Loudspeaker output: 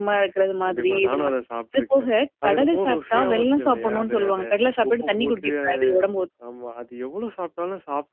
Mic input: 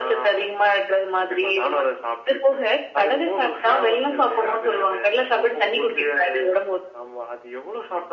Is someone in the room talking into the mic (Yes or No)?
No